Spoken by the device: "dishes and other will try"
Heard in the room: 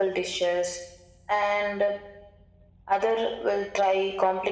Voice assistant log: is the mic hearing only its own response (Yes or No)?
Yes